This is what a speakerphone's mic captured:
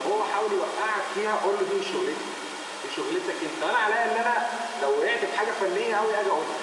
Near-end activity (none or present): none